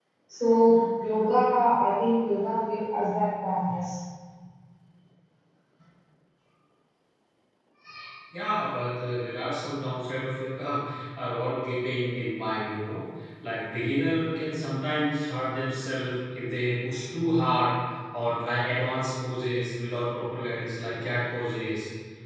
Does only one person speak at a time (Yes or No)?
Yes